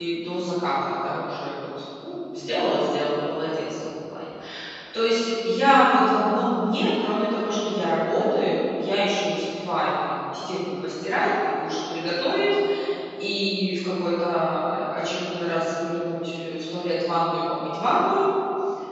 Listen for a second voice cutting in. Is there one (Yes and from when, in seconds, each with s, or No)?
No